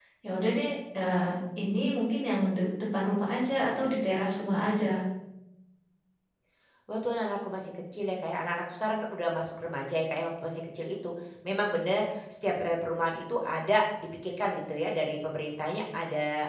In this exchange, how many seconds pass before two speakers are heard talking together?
none

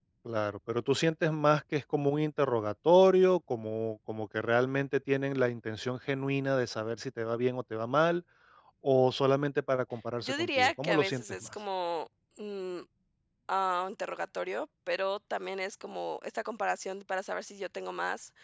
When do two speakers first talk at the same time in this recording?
10.2 s

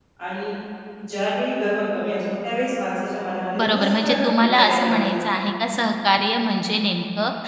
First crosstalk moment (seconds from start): 3.5 s

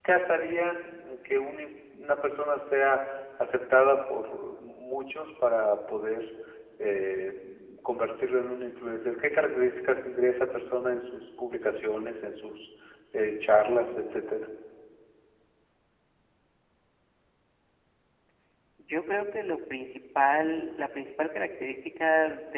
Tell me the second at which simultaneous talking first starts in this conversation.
none

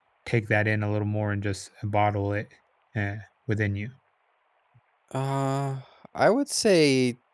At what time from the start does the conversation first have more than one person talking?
none

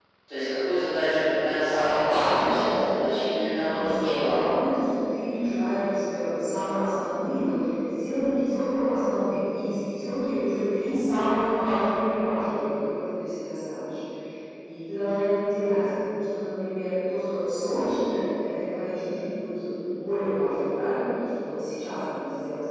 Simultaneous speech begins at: 1.6 s

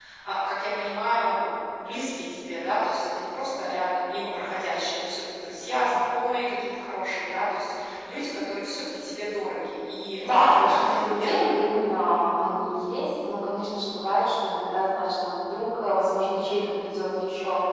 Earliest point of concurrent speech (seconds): 10.2 s

